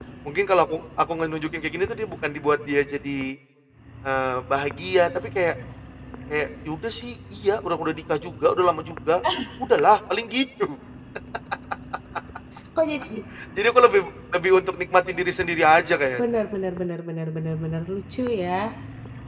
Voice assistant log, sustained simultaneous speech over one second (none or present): none